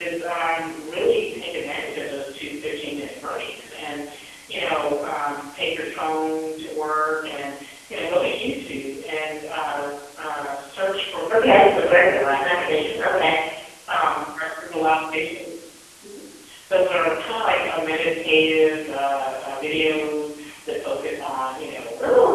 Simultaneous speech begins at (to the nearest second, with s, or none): 11 s